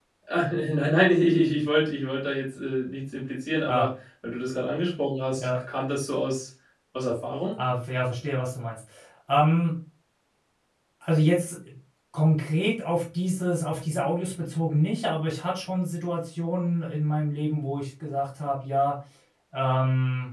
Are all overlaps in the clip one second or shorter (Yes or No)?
Yes